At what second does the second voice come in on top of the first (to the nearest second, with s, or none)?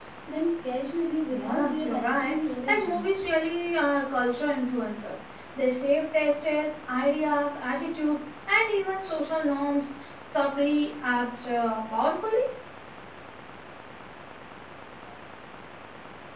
1 s